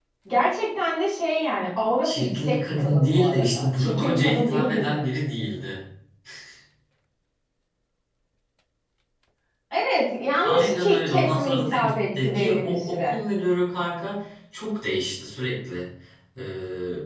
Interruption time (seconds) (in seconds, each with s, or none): 2.0 s